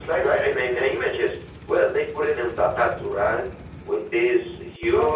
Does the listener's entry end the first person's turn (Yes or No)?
No